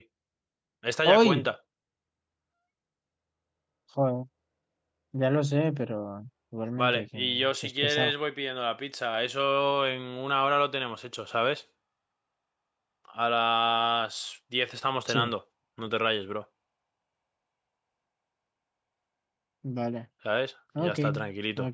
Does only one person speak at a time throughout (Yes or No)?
No